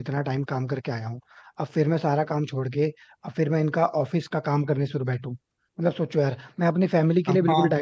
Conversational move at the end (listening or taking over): taking over